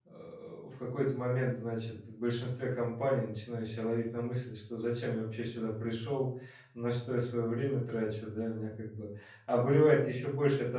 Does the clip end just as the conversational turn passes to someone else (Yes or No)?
No